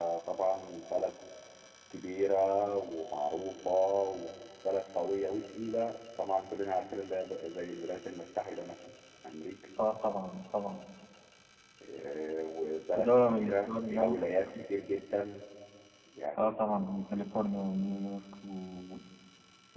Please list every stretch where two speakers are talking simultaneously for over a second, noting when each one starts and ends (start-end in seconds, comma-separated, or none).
12.9-14.2